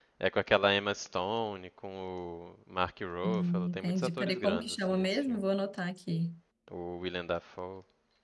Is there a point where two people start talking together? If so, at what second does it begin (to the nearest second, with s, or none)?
3 s